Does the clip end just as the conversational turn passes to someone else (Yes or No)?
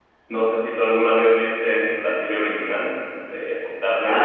Yes